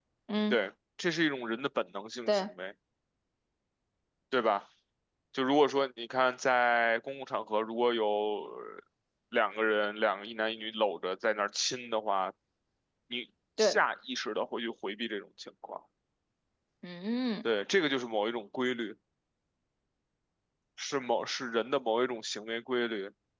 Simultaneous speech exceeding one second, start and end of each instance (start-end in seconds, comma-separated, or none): none